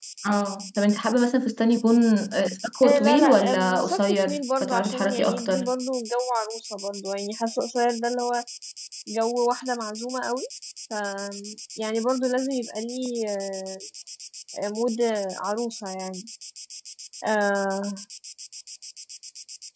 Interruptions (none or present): present